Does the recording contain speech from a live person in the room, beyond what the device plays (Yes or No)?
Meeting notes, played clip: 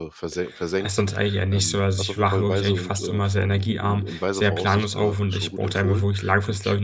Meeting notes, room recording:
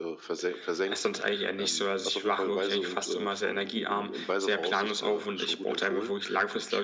No